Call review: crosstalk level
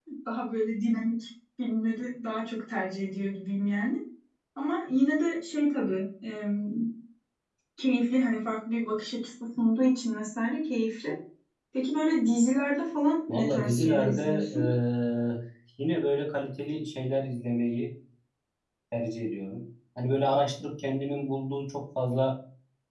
present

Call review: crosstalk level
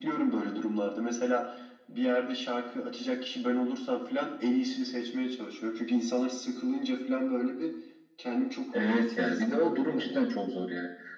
present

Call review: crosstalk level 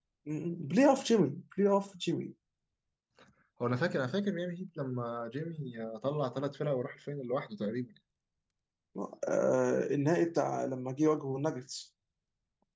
none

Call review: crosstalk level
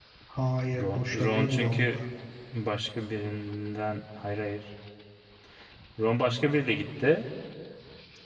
present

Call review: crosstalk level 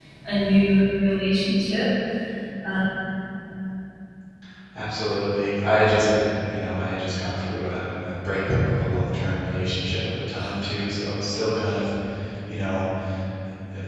none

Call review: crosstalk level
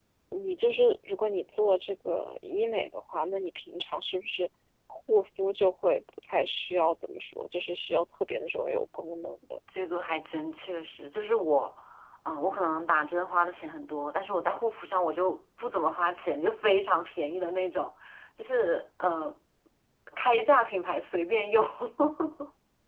none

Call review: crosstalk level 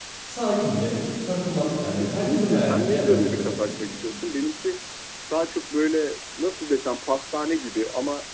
present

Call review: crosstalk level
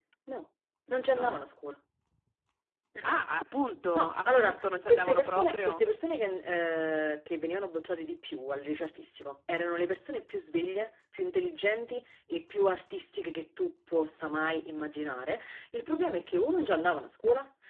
present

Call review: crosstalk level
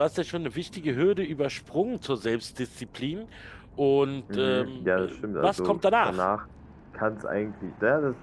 present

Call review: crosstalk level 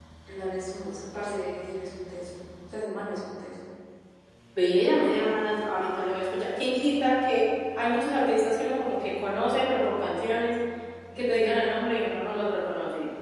none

